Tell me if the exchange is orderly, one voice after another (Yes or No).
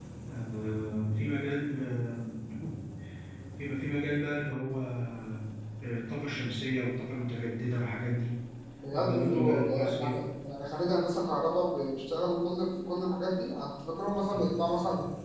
No